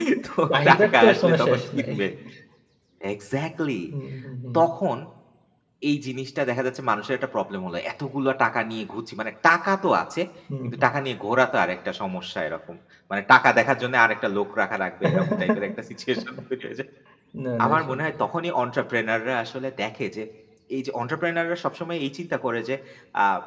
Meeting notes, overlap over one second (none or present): present